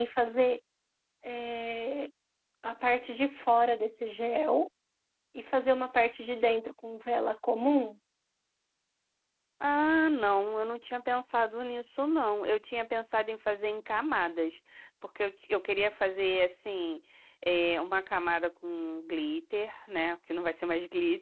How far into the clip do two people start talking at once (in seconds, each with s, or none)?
none